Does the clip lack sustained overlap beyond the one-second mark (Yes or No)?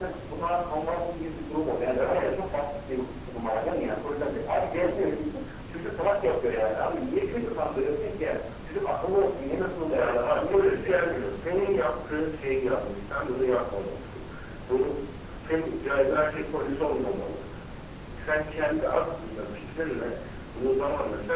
No